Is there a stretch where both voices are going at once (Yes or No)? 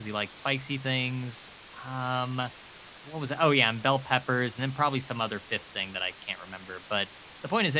No